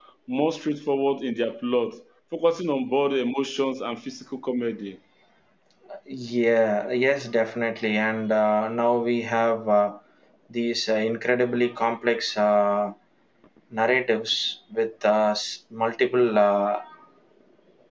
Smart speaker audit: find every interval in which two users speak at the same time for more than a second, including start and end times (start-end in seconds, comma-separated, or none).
none